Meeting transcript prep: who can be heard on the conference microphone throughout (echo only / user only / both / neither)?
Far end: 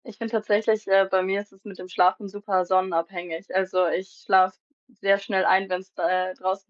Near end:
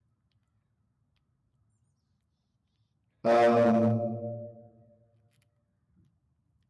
user only